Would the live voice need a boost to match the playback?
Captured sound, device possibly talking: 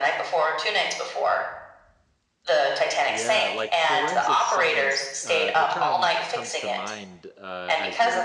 Yes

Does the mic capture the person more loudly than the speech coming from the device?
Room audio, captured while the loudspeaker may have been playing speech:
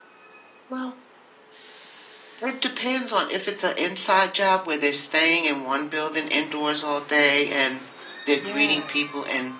No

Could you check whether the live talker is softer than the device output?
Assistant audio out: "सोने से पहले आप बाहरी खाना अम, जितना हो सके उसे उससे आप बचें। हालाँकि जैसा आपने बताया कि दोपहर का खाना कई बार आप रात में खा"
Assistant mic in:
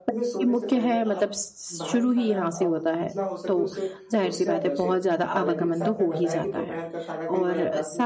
No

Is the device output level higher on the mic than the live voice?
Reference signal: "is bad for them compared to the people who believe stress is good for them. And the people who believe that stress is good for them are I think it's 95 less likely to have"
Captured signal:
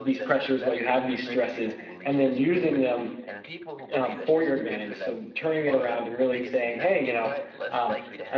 No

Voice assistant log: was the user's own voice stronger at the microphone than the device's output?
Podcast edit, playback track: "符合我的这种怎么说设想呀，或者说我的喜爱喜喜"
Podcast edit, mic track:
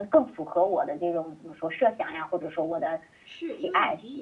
No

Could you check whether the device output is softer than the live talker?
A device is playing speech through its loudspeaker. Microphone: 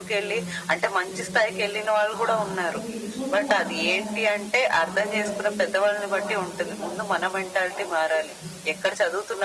No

